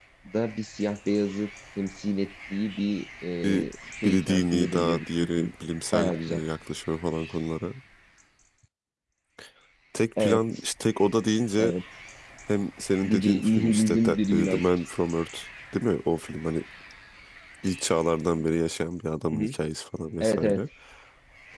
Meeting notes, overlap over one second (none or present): present